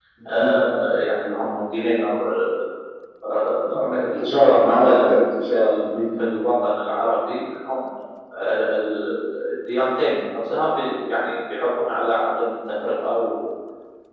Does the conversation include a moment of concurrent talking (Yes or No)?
Yes